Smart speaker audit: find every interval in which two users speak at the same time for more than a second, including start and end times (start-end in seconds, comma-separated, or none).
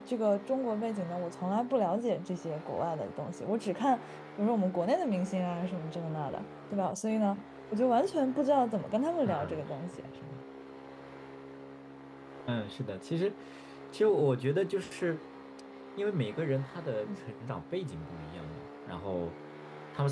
none